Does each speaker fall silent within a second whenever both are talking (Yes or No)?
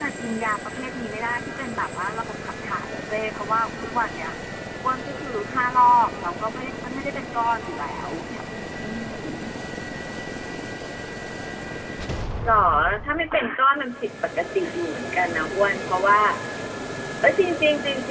Yes